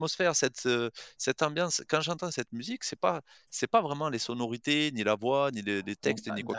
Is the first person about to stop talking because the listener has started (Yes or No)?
Yes